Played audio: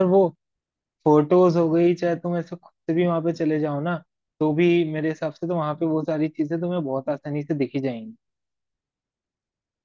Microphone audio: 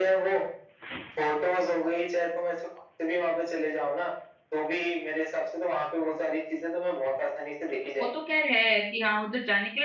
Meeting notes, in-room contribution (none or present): present